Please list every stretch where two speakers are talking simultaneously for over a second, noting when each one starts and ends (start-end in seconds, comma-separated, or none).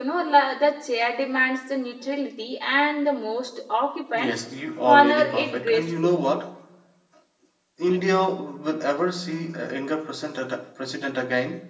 4.9-6.2